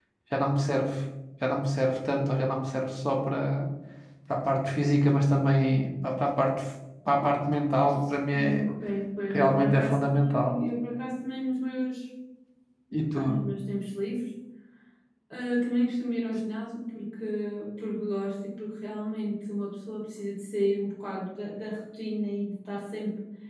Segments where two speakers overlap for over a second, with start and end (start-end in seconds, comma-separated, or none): 9.3-10.6